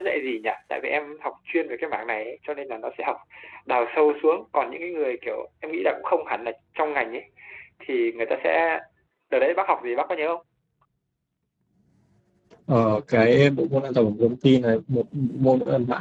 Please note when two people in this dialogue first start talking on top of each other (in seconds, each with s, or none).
none